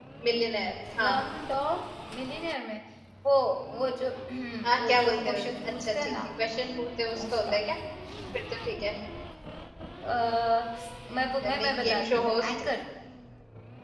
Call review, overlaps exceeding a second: present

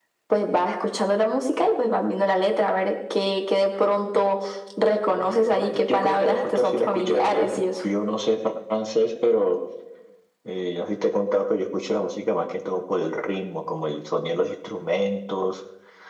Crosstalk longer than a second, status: present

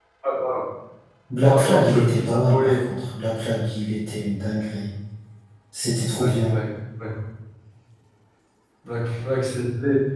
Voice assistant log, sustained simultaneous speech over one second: present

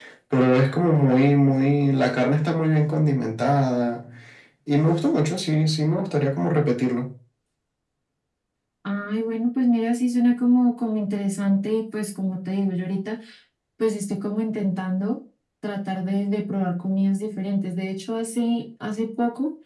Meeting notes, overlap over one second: none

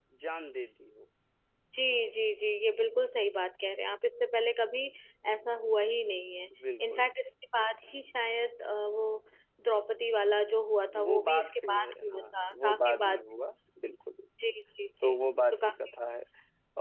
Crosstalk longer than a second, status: present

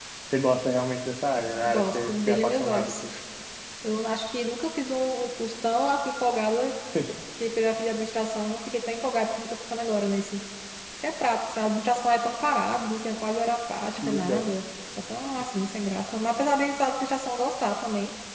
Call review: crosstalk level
present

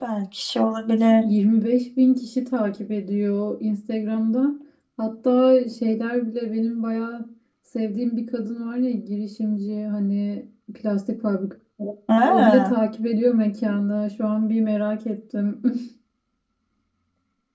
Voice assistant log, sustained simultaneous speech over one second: none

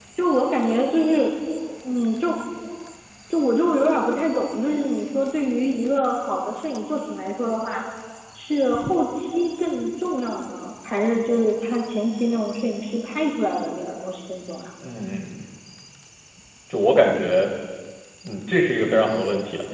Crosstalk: none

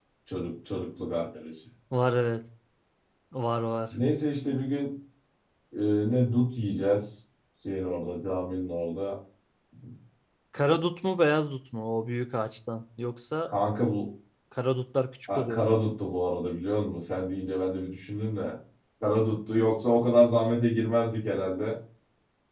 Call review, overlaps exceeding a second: none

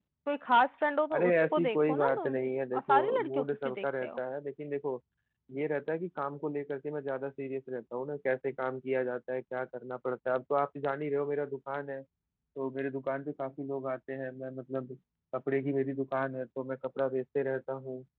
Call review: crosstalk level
present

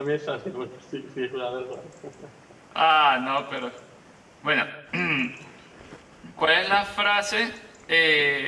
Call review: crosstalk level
none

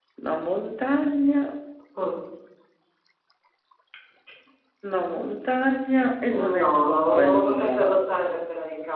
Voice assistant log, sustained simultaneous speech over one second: present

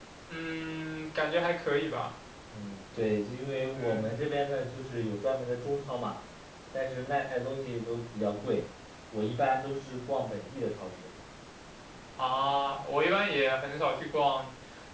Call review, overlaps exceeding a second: none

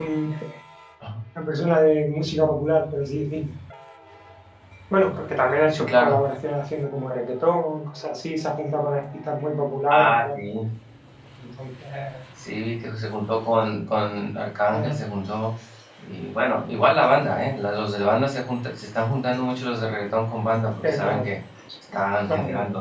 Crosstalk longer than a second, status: none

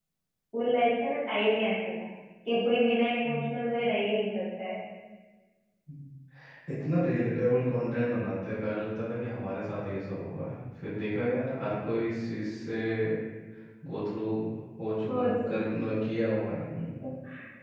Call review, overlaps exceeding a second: none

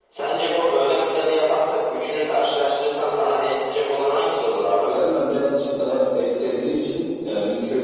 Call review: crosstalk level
none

